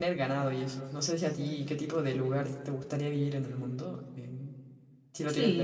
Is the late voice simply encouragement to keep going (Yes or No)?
No